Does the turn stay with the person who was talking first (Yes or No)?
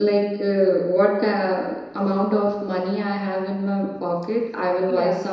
Yes